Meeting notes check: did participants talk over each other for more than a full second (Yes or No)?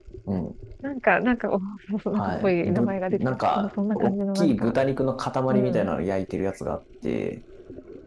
Yes